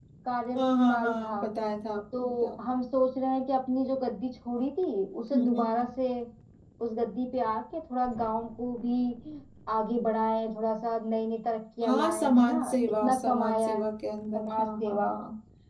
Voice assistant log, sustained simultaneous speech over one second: present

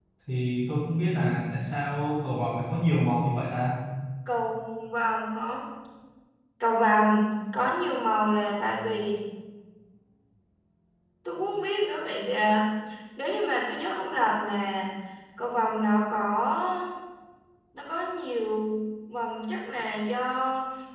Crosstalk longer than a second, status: none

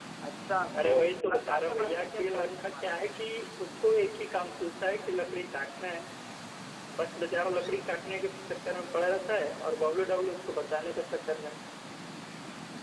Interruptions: present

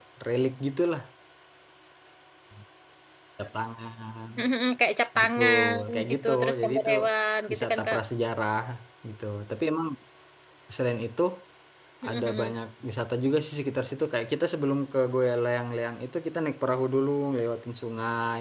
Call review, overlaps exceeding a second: present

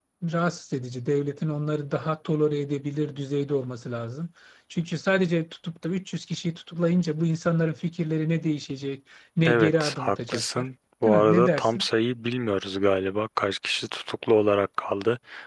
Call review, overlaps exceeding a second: present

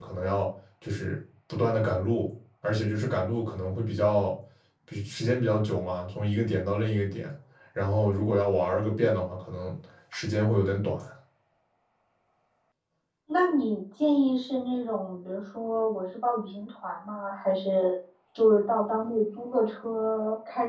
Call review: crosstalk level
none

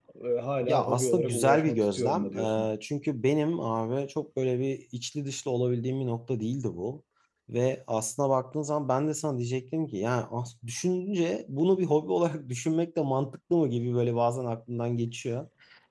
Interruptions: present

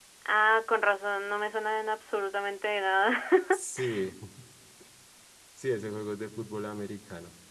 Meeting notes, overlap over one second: none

